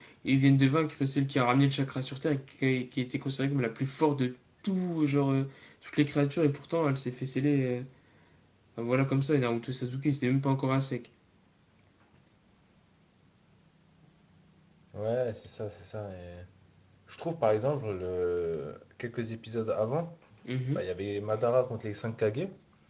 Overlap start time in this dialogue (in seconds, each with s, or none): none